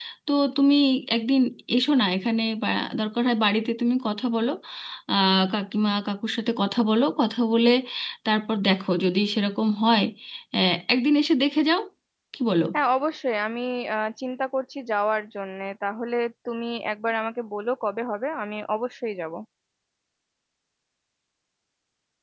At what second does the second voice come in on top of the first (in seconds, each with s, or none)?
none